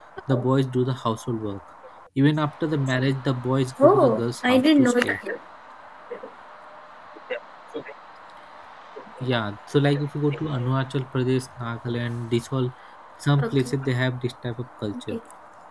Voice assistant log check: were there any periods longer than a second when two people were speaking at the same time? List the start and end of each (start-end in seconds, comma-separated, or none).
3.8-5.2